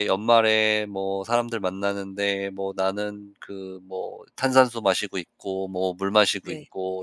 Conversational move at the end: listening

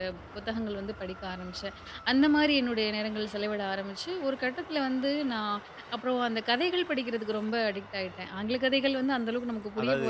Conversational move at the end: taking over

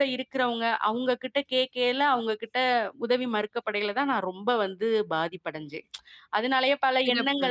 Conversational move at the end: listening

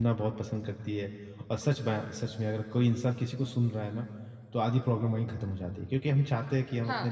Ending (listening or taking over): listening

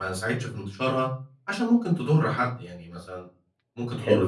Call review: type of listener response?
listening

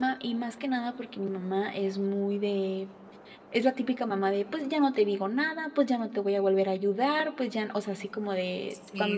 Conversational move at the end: taking over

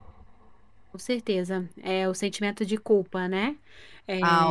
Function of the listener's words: taking over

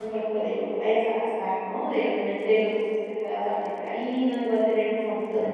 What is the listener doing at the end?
listening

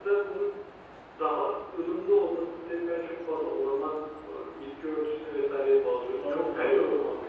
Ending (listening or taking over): taking over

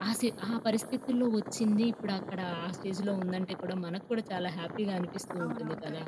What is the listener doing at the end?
taking over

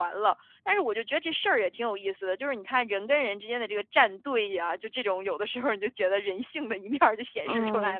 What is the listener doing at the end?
taking over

